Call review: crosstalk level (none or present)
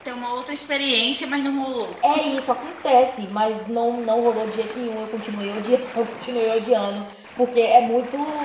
none